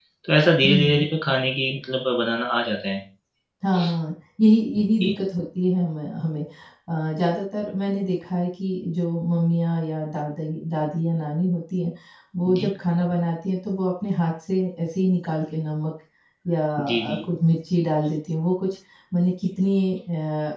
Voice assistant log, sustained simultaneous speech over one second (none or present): none